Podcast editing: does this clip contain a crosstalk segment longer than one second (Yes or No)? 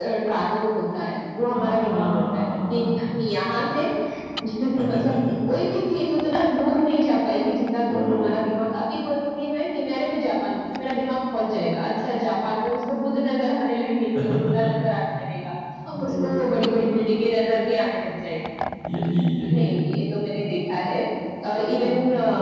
Yes